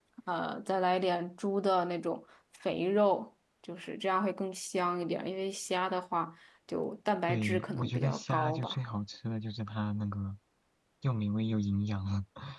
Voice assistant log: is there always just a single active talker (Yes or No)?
No